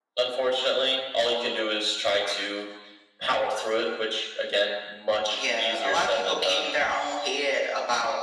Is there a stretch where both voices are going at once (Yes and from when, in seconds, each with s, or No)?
Yes, from 5.2 s